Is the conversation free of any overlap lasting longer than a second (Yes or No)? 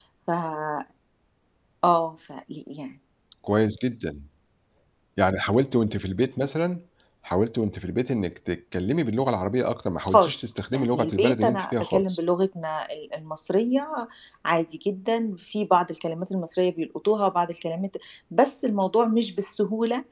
No